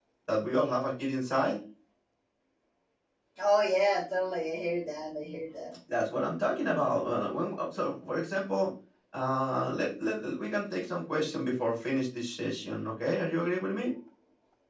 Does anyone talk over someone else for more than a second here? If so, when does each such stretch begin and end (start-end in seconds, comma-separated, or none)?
none